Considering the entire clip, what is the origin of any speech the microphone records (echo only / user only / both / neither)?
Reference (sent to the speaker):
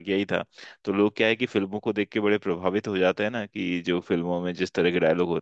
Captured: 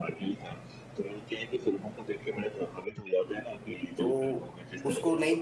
both